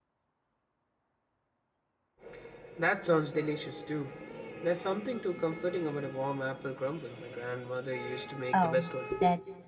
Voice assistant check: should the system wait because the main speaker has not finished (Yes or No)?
No